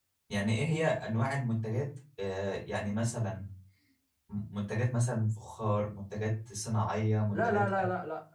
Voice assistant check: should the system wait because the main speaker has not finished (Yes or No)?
No